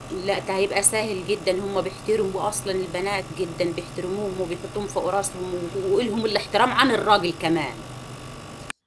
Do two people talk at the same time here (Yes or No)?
No